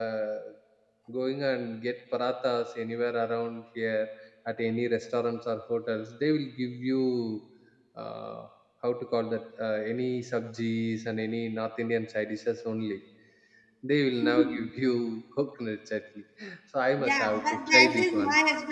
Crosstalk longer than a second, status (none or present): present